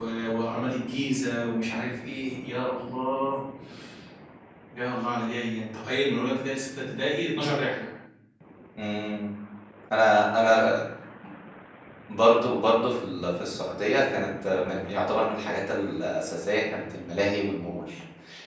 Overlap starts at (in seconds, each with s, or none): none